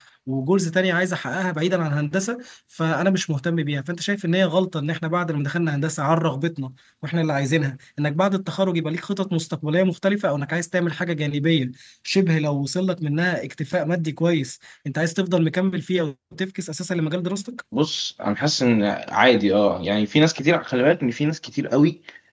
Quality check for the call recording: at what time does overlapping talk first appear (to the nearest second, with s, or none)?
none